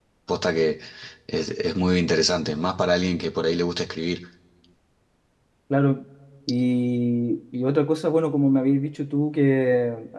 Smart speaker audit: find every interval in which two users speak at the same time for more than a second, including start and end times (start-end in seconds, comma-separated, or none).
none